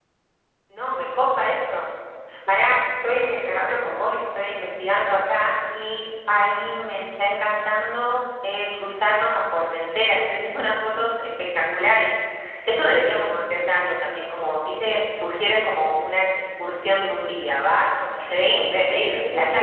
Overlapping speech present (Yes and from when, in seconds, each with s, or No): Yes, from 18.2 s